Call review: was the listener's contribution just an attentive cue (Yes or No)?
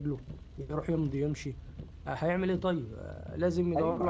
No